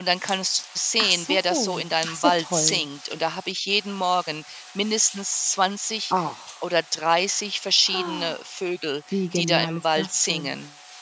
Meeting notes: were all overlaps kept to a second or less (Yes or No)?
No